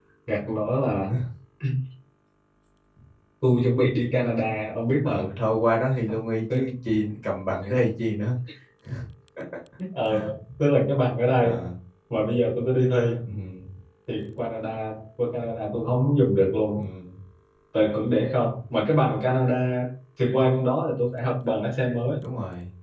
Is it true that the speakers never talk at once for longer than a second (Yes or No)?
Yes